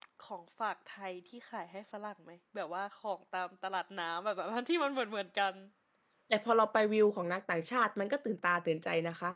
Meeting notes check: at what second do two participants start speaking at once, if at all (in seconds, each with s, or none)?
none